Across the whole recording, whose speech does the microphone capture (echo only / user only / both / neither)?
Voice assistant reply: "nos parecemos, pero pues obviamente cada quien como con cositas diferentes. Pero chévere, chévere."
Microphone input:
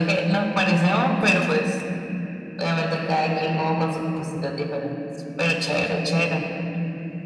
echo only